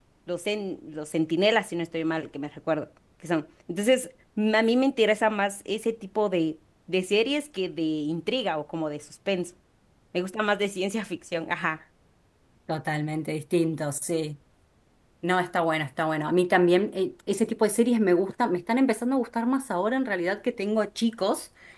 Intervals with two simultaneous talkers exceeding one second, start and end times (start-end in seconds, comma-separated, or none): none